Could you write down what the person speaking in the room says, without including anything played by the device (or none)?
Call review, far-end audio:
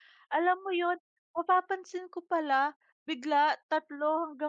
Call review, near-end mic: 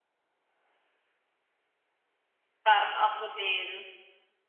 Tam ako din.